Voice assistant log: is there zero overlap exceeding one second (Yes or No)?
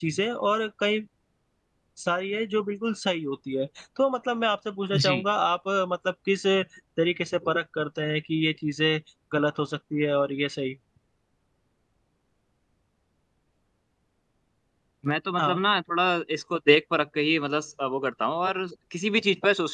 Yes